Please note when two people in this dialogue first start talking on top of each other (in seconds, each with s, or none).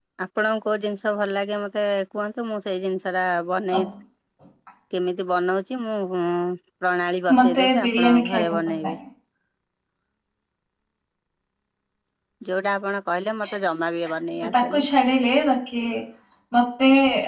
7.4 s